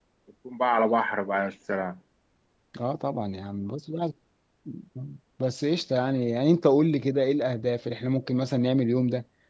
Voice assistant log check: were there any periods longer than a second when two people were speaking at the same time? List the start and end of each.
none

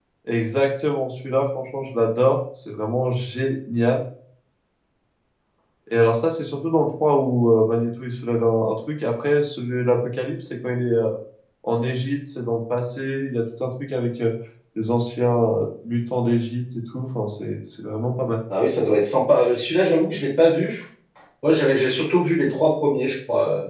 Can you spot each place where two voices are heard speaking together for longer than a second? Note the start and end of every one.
none

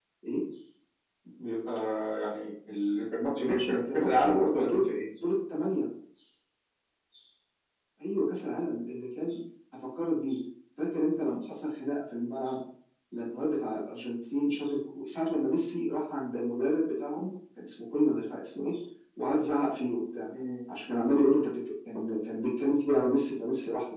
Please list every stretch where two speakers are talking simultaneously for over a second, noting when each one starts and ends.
3.4-4.8

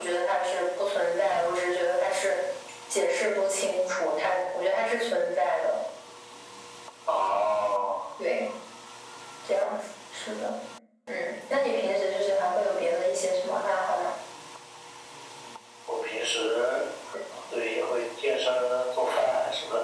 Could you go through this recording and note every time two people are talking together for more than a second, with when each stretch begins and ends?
none

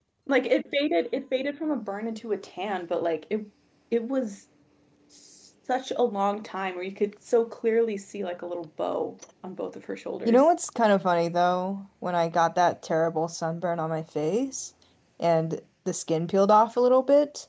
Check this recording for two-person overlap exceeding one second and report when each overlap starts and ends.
none

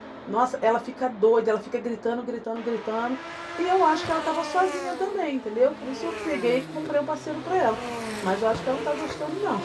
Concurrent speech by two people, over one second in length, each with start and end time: none

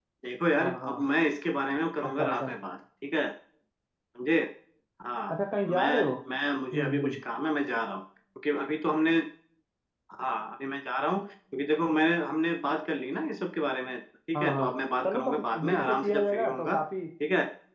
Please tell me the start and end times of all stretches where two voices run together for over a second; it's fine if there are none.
15.0-16.8

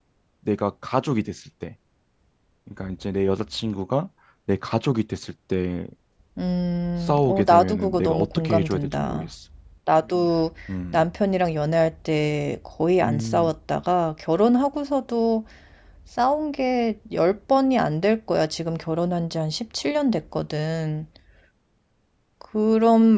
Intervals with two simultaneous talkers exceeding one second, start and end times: 7.0-9.3

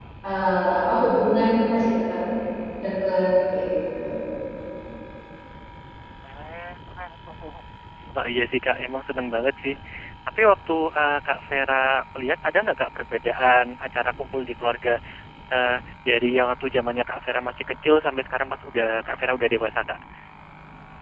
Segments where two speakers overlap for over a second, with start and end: none

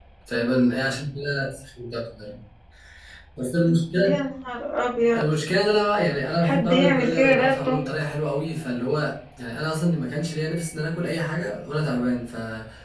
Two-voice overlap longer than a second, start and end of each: 6.4-7.8

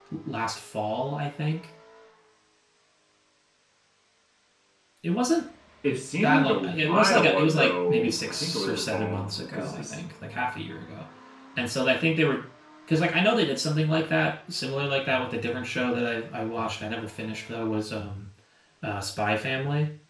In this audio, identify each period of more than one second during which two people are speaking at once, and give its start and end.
6.2-10.0

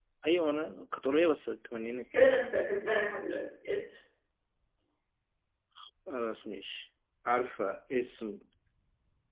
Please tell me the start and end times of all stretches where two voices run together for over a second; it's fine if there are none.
none

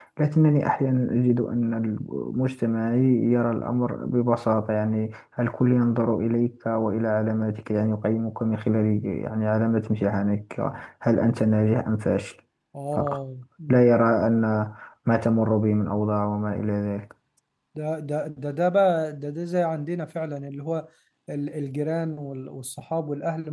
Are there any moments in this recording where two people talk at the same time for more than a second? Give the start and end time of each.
none

